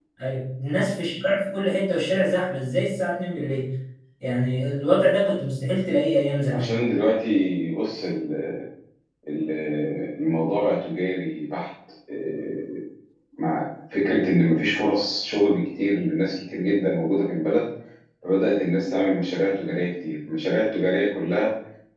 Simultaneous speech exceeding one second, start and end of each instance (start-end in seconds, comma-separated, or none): none